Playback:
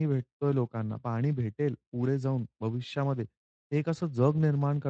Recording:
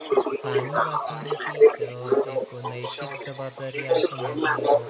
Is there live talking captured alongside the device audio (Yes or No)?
Yes